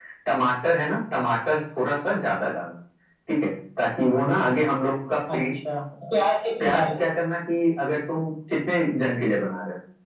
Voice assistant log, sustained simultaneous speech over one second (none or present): none